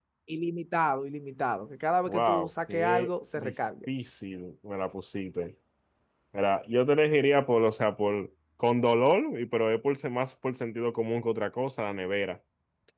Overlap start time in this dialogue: 2 s

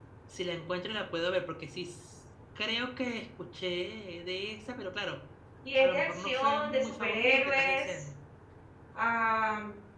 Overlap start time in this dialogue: 6 s

